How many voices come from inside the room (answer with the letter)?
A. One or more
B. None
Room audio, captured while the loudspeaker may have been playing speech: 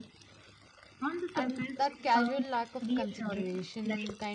A